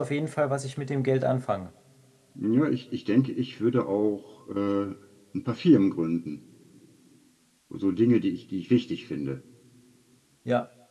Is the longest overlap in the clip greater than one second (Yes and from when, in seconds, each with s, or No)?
No